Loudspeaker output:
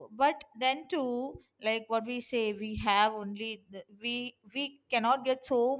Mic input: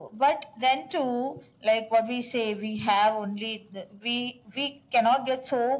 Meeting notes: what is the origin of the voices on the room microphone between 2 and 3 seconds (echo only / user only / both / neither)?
echo only